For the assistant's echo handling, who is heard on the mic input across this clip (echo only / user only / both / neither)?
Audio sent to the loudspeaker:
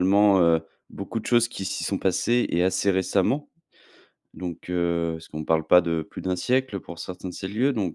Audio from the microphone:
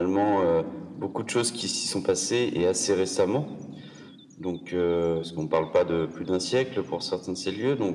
echo only